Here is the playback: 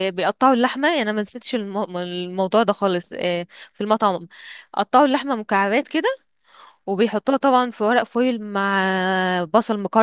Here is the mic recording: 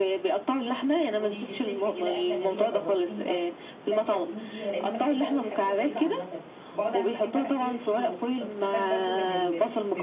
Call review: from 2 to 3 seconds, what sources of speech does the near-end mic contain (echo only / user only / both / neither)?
both